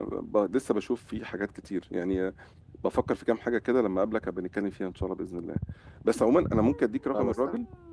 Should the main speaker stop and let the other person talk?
No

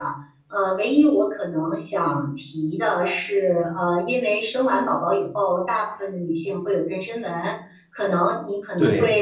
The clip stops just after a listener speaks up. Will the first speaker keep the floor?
Yes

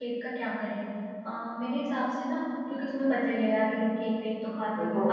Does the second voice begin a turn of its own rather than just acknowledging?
No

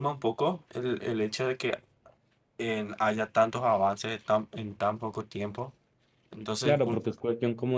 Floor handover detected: Yes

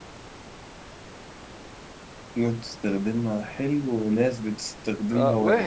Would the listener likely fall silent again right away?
No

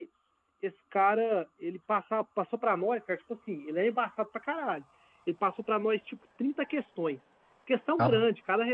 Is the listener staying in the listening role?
Yes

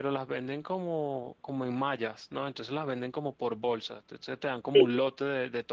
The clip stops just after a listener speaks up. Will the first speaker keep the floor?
Yes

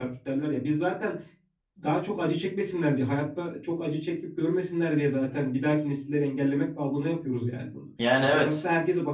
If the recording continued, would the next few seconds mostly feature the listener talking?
No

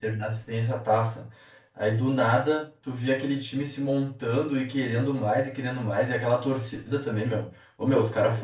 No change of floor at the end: Yes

